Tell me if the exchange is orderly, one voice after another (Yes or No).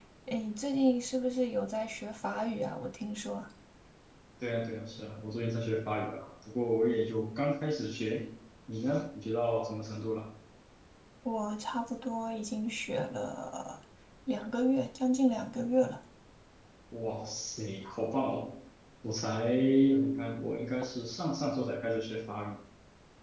Yes